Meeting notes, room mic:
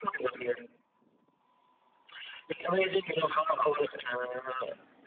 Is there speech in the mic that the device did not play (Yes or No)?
No